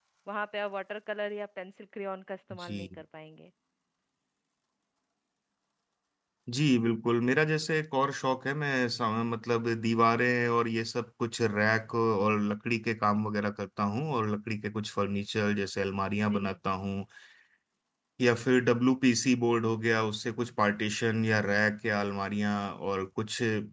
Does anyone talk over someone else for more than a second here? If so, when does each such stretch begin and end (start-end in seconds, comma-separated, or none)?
none